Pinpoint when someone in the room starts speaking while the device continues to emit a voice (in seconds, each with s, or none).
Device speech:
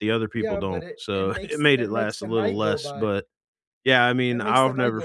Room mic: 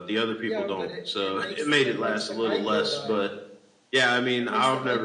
none